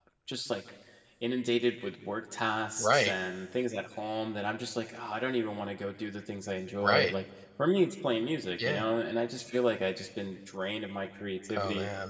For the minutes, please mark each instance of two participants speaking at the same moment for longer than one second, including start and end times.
none

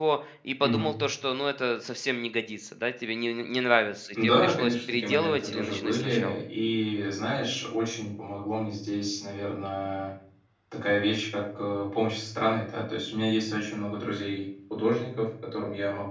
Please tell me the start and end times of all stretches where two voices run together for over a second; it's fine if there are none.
4.2-6.4

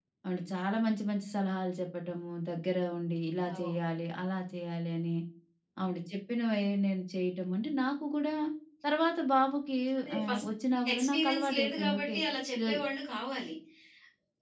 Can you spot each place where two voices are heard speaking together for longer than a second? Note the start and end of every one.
10.9-12.2

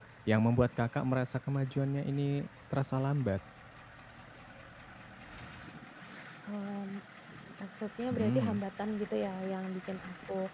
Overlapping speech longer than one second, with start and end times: none

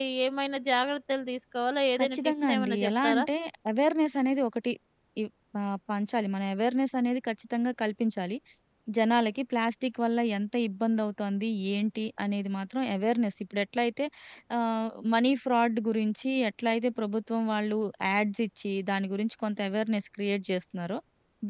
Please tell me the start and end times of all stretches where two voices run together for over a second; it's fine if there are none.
2.0-3.2

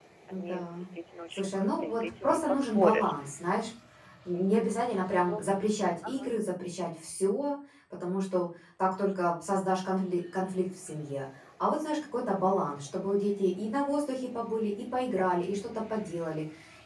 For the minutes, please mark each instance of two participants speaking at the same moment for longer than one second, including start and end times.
1.3-3.1

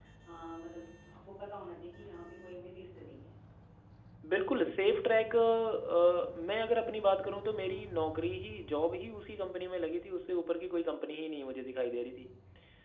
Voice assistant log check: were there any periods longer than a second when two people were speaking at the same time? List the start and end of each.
none

